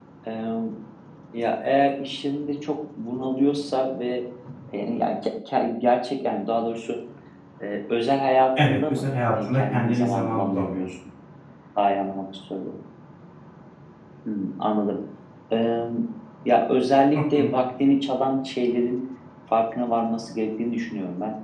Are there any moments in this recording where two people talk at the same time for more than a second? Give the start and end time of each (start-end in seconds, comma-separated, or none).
8.6-10.9